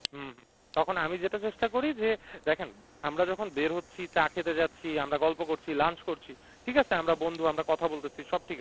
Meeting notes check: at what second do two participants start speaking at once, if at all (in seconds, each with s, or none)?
none